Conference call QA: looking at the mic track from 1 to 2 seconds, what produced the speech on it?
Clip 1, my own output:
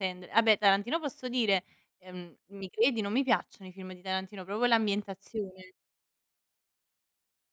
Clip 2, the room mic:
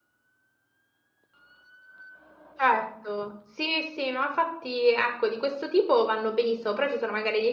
neither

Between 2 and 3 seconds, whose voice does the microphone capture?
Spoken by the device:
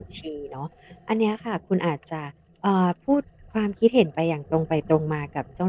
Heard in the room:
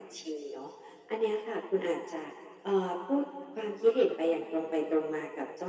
echo only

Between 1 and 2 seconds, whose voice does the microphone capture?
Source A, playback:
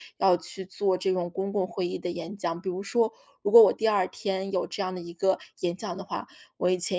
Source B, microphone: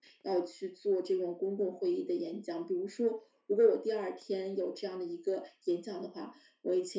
echo only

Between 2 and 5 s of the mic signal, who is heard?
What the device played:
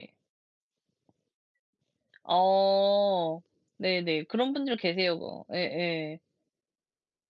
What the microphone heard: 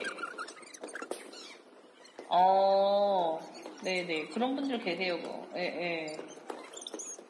echo only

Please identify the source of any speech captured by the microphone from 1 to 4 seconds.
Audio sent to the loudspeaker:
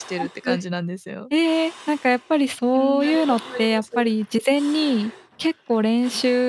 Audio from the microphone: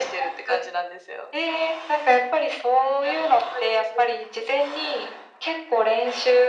echo only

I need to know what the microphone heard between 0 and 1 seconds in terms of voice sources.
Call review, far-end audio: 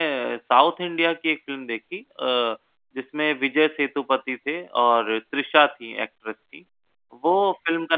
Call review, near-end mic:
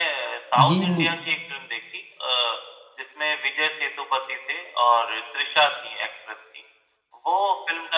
both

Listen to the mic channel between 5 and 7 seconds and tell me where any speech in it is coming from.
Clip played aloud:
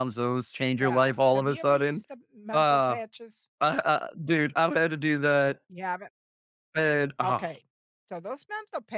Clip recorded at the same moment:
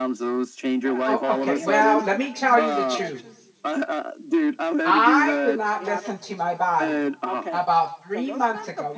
both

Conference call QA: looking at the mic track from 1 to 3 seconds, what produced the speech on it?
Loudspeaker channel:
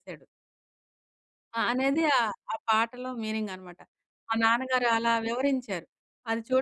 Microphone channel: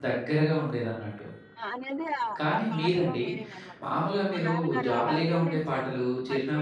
both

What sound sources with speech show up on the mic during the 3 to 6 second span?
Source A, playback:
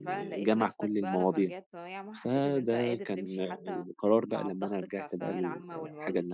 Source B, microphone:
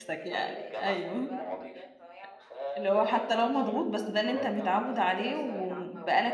both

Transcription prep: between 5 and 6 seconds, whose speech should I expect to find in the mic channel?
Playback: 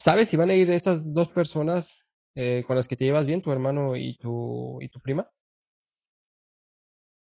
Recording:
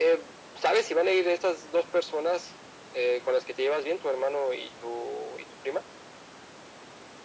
echo only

